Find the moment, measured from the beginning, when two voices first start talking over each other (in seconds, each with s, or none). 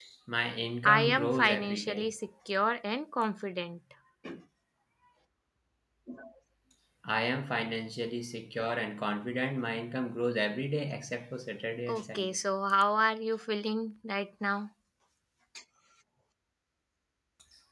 0.8 s